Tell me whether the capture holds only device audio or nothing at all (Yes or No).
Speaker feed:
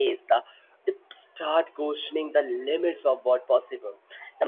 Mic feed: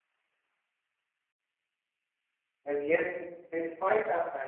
No